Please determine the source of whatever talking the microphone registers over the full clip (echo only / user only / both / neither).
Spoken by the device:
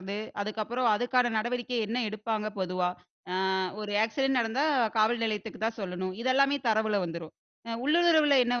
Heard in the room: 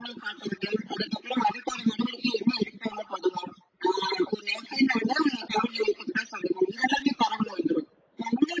echo only